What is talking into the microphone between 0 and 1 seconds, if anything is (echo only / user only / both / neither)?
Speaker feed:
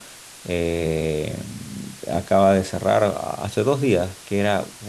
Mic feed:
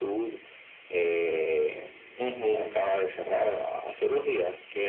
echo only